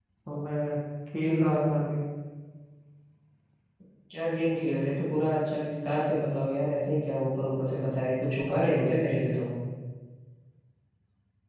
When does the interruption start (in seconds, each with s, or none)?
none